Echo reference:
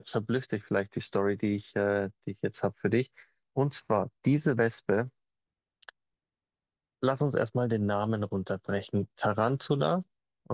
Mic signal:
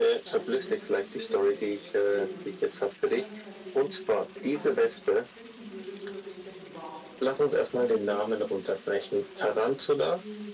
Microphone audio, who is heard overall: both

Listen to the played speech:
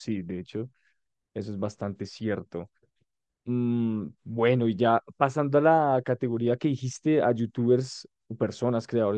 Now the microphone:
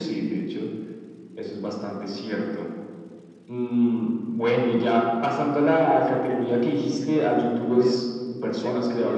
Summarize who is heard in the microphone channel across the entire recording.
both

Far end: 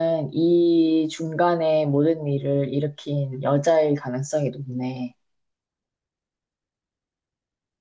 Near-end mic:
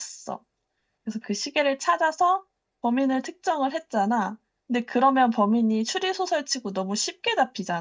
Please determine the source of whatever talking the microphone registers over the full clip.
user only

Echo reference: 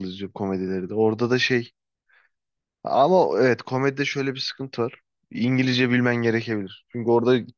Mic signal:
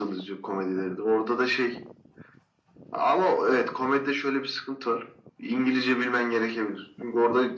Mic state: echo only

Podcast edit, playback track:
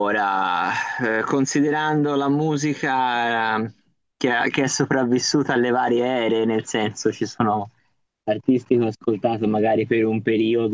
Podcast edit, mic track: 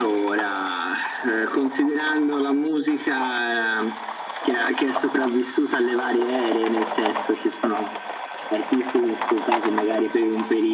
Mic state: echo only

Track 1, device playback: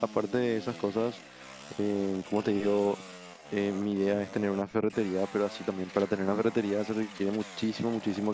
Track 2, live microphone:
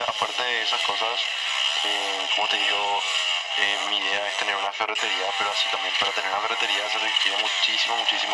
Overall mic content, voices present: echo only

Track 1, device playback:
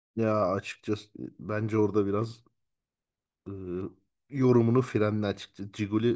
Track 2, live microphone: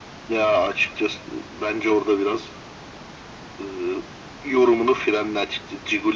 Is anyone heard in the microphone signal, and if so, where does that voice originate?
echo only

